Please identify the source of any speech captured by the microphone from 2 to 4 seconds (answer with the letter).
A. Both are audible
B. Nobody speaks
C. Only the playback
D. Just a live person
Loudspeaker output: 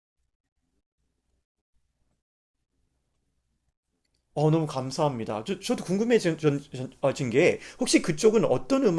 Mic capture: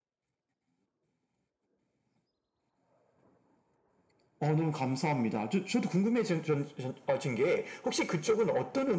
B